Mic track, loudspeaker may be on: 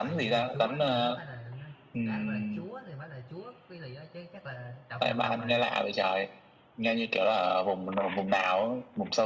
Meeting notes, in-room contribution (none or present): present